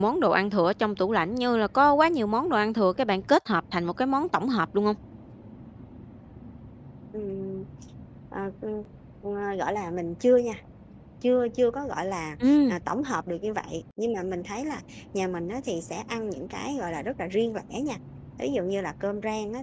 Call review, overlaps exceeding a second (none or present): none